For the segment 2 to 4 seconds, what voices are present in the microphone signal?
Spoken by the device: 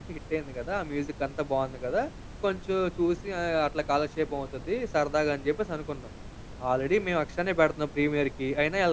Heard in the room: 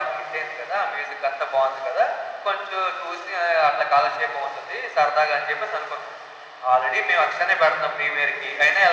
echo only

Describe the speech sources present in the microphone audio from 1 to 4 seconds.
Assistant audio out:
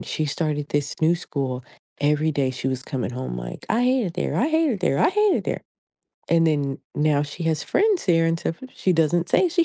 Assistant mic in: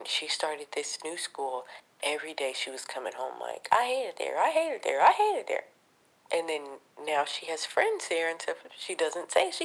echo only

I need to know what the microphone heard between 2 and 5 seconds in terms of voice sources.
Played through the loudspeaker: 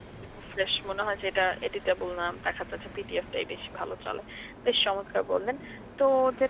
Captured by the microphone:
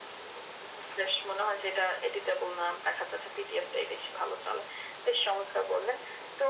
echo only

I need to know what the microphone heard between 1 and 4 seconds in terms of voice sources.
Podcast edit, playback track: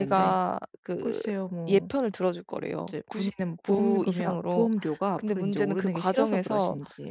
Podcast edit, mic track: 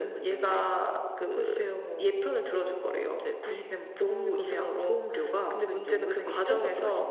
echo only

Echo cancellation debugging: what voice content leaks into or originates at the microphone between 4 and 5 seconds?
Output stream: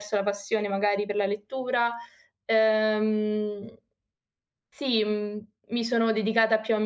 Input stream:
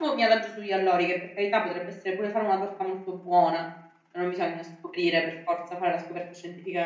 user only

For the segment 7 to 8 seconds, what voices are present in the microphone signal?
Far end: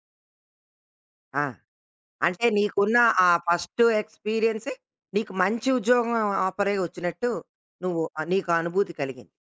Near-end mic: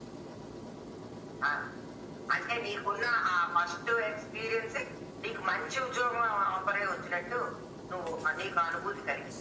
echo only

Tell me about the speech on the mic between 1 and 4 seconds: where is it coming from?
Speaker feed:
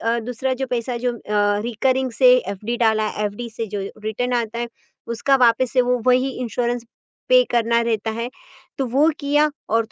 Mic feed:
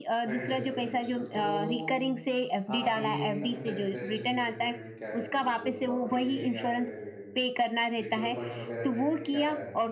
both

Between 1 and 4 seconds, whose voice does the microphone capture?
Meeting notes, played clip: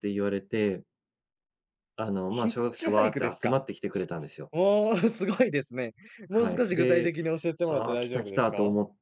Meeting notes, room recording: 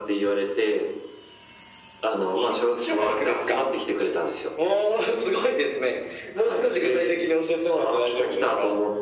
echo only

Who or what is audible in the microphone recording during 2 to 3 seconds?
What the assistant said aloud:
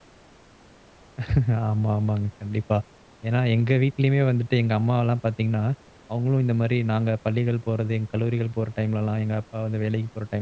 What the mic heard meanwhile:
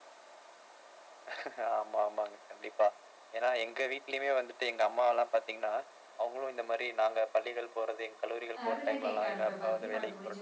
echo only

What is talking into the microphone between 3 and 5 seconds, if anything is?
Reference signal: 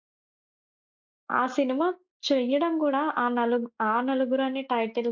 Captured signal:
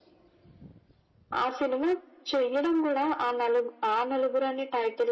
echo only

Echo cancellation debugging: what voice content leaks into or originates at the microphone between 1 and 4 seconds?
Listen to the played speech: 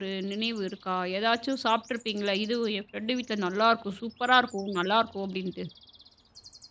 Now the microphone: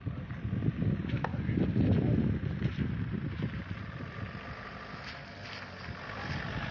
neither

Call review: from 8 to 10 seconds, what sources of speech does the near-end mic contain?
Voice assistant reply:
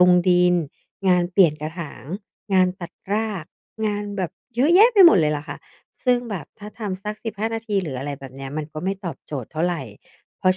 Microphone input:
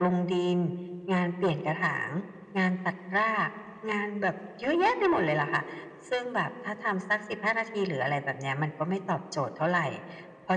echo only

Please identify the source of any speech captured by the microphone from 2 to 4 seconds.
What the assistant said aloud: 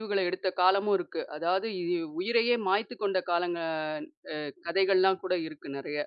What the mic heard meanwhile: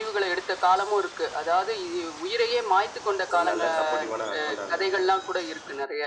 both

